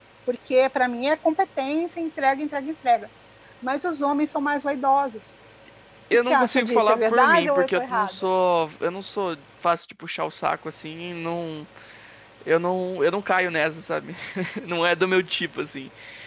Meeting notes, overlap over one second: present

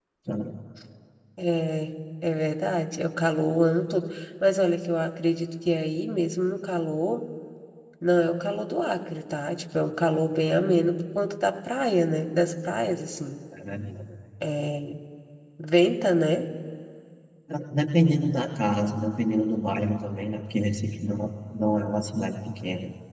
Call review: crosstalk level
none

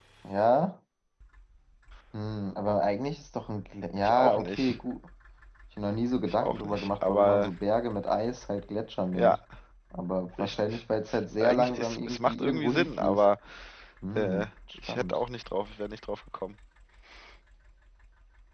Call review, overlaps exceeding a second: present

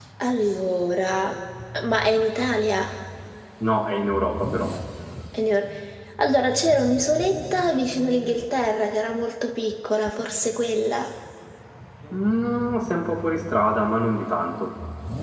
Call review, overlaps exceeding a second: none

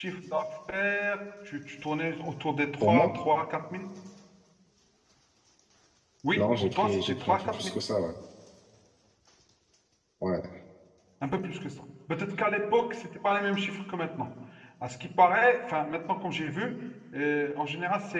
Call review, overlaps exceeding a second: present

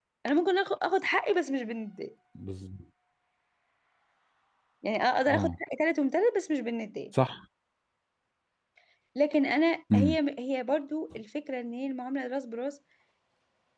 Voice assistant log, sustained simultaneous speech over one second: none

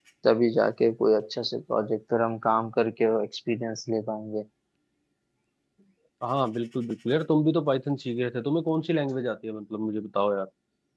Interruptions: none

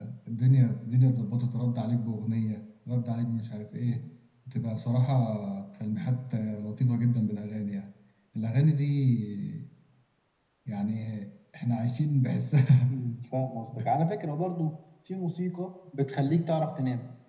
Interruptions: none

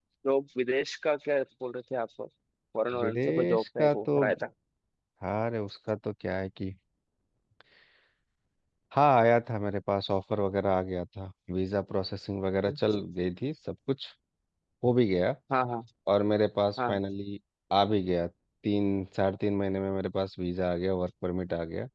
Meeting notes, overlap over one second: present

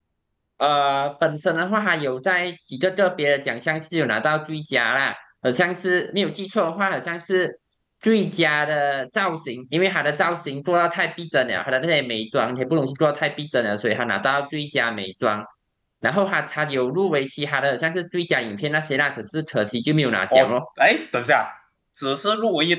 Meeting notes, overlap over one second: none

